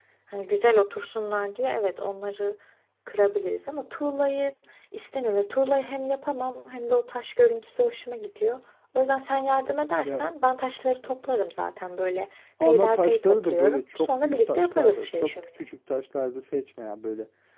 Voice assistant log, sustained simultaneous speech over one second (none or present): present